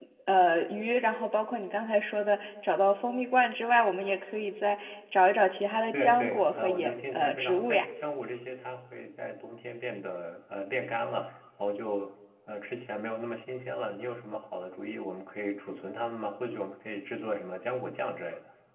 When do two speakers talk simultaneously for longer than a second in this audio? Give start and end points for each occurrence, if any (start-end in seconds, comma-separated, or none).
5.9-7.9